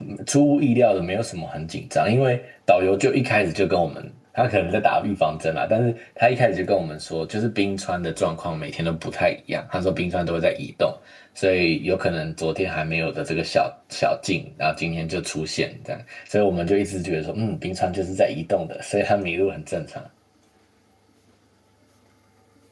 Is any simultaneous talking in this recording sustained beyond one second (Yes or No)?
No